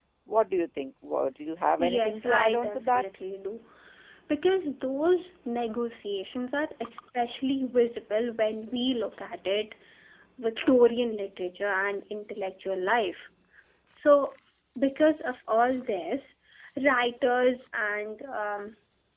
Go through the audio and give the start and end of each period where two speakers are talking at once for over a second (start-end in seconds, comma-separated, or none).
1.8-3.0